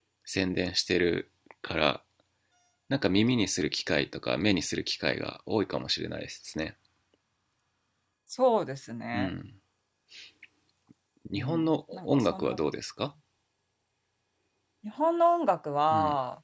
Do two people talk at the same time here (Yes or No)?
Yes